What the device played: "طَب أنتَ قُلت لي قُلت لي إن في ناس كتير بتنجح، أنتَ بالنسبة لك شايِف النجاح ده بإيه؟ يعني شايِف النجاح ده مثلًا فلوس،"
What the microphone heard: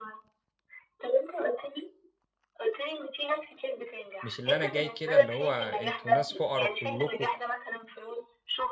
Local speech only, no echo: مش اللي أنا جاي كده اللي هو أنتم ناس فقَرا كلّكم،

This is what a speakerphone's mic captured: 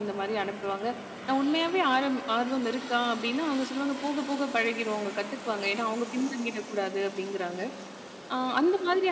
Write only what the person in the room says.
none

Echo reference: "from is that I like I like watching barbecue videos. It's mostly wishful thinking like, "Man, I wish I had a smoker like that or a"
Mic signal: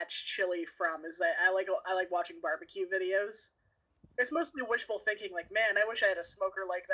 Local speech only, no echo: none

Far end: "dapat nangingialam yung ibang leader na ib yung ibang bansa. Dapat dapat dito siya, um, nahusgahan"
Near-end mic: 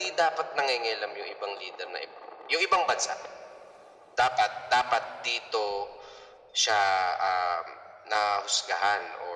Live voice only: none

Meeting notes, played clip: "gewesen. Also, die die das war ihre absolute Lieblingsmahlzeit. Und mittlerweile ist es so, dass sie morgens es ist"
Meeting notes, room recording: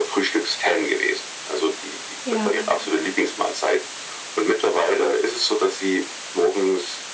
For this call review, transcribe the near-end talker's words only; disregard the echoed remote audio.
Ja.

